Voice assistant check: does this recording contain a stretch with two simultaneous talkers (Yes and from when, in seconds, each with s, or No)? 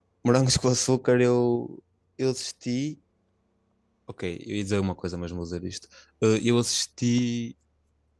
No